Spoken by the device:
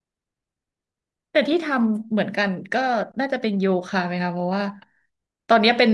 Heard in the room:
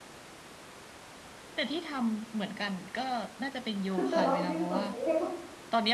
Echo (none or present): present